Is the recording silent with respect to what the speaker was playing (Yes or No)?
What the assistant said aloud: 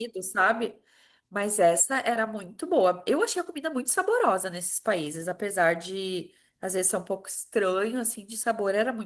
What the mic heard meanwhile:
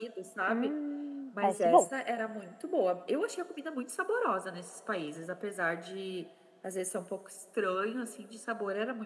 No